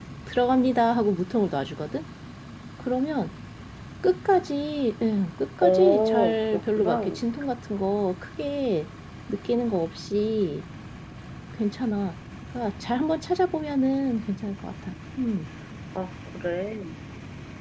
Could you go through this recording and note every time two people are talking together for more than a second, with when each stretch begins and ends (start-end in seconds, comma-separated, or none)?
5.6-7.0